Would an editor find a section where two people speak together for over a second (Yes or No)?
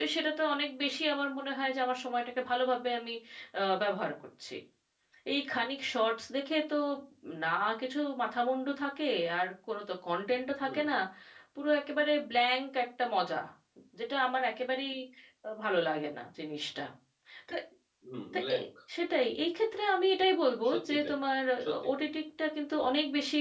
No